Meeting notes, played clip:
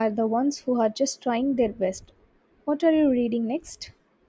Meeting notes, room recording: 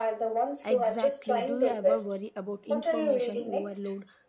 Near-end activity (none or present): present